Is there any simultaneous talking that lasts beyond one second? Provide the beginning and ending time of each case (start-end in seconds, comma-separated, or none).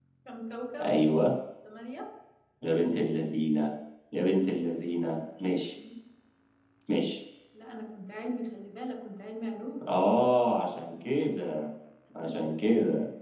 none